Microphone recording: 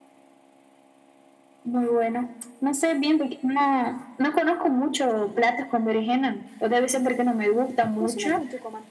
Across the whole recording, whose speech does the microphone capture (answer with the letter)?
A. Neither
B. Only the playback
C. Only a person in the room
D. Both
D